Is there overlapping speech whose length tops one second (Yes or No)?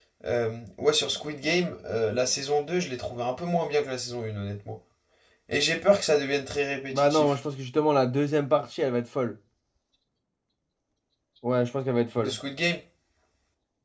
No